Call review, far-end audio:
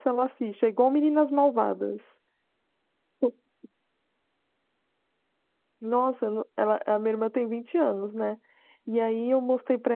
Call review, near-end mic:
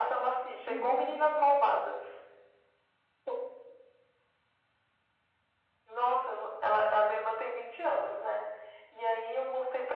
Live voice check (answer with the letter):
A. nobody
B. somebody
B